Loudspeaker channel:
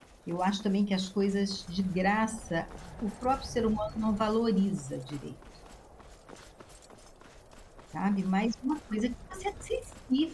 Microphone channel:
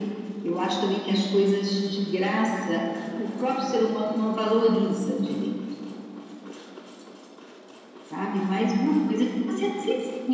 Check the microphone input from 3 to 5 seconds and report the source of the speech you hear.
echo only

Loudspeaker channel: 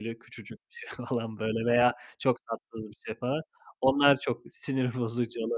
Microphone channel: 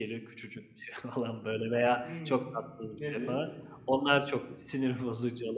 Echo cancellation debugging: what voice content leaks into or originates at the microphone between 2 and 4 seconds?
both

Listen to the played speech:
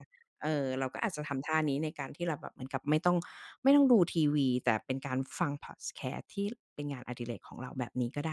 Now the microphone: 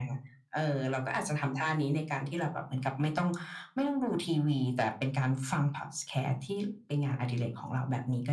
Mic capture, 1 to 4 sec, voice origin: echo only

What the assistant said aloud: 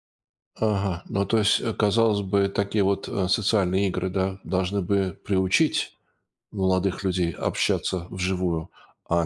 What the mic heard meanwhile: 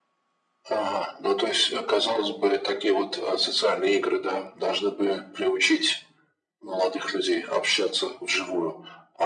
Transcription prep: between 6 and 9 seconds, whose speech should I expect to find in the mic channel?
echo only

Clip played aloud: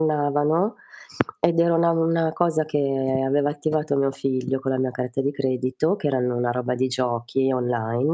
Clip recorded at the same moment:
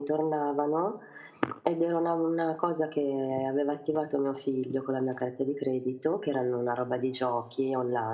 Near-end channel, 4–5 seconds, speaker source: echo only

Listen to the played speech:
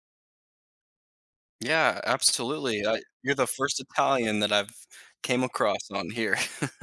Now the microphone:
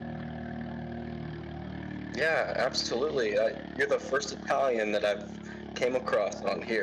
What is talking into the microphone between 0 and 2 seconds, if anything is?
neither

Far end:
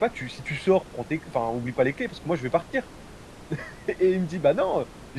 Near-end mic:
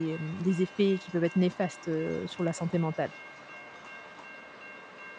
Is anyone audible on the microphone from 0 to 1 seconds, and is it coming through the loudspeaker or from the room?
user only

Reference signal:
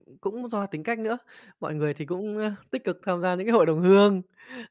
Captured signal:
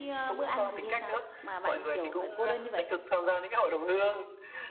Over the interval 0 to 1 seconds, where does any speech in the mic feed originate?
both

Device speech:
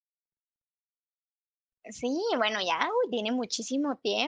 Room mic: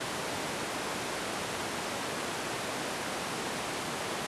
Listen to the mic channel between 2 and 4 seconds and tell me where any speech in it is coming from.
neither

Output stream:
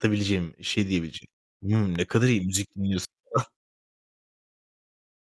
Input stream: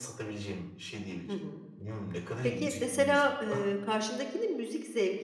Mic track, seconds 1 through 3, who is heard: both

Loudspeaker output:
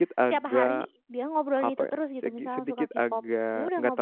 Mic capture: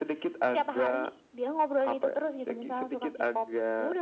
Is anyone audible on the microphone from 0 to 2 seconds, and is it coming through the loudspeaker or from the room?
echo only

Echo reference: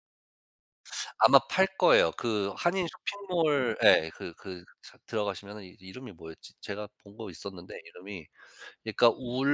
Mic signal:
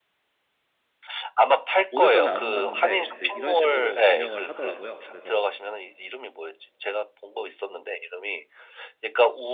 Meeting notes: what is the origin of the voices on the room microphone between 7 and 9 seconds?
echo only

